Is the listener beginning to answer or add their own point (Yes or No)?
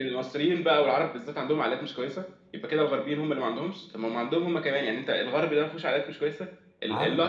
No